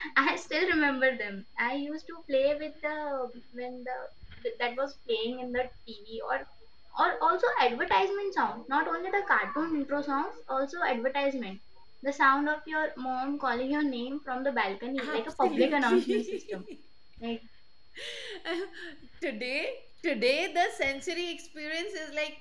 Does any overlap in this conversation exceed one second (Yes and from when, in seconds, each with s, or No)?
Yes, from 15.0 s